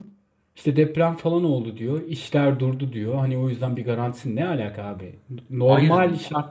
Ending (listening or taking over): listening